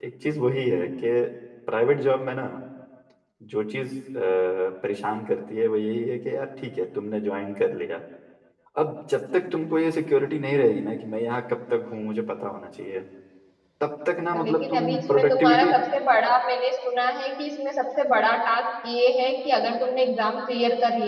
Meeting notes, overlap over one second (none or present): present